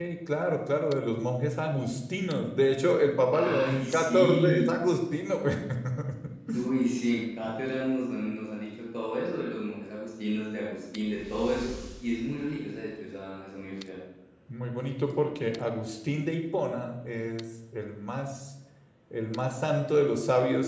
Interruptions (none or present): present